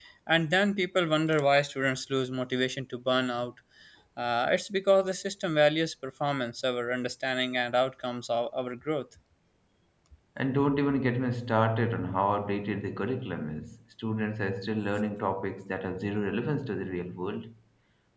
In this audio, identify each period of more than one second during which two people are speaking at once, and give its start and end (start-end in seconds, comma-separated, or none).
none